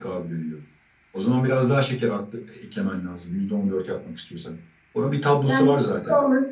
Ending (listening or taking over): taking over